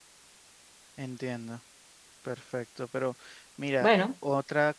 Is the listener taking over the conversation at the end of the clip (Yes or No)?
No